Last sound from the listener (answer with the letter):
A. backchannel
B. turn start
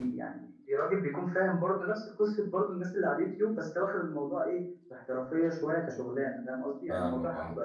A